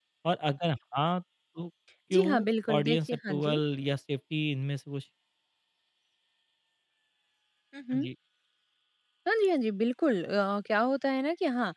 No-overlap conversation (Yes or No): No